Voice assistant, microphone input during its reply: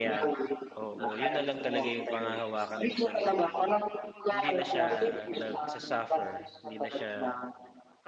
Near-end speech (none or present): present